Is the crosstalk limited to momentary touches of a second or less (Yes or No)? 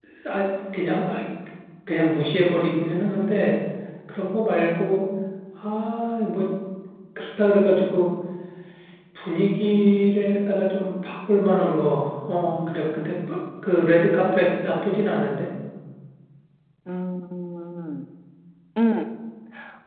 Yes